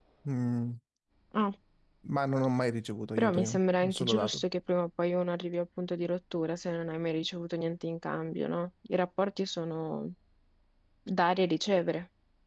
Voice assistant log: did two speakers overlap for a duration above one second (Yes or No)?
Yes